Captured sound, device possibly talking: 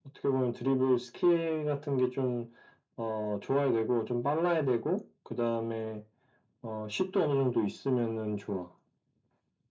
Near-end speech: none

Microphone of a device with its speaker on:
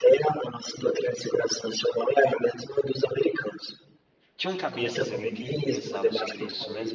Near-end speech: present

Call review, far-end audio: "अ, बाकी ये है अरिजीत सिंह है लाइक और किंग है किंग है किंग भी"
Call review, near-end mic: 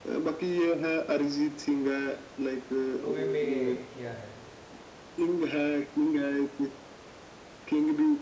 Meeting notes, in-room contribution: present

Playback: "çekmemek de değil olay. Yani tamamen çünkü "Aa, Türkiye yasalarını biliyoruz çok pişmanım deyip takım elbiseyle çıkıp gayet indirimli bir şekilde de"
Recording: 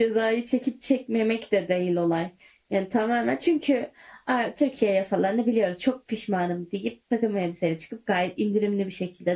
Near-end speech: none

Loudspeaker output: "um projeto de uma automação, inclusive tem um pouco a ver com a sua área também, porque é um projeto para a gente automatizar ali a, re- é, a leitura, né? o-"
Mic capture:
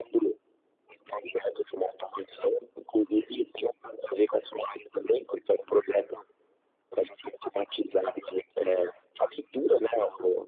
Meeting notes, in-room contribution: none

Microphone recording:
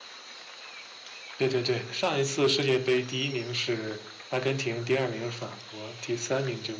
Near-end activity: present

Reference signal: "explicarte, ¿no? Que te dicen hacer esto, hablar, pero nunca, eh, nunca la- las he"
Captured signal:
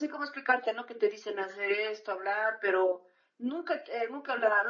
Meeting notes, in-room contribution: none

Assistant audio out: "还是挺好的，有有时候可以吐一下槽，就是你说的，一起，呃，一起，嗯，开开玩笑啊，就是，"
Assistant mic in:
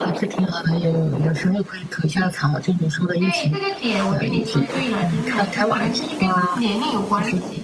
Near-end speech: present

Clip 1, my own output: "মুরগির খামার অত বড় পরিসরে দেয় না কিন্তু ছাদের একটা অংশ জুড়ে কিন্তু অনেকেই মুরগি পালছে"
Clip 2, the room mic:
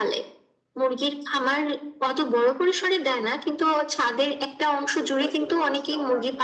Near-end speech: present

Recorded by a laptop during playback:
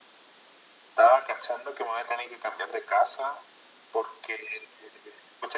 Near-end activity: none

